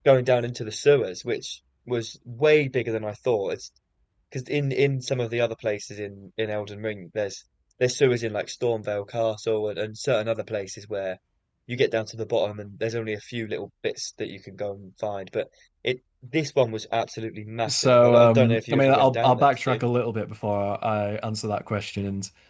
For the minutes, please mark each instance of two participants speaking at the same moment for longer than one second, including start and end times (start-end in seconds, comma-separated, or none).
17.7-19.8